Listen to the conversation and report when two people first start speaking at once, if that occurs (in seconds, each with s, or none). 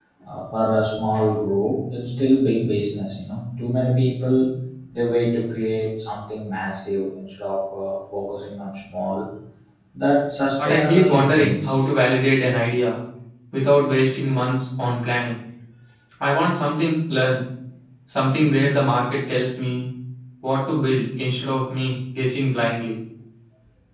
10.6 s